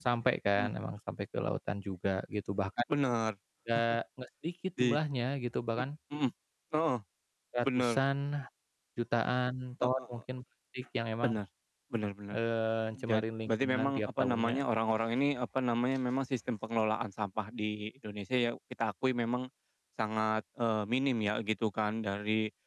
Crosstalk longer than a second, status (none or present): present